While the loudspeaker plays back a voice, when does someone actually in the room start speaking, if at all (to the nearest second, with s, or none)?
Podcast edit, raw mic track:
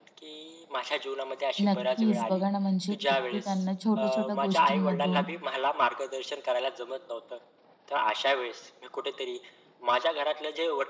2 s